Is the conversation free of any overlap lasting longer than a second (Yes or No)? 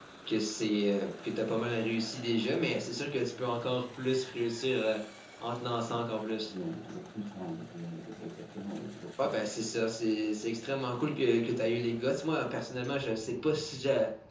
Yes